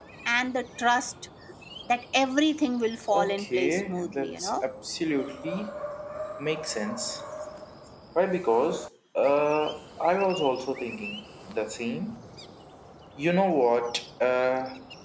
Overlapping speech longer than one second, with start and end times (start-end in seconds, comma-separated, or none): 3.1-4.5